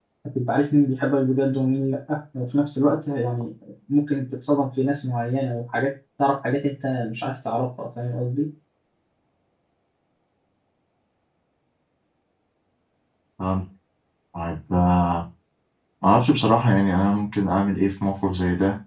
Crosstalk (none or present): none